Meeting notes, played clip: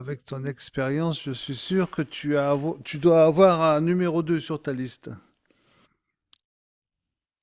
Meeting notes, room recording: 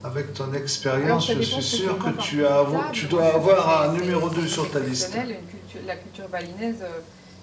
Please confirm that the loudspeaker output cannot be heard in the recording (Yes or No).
No